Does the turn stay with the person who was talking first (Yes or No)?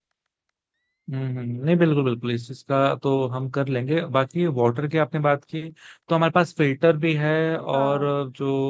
Yes